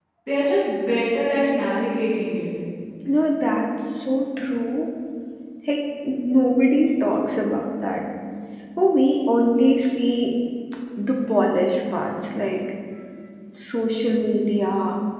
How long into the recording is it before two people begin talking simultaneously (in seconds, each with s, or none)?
none